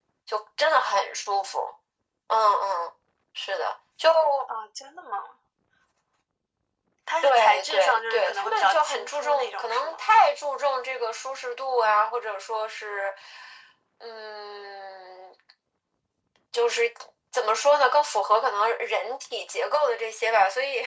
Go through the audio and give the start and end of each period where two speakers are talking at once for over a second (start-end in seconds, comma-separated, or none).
7.2-10.1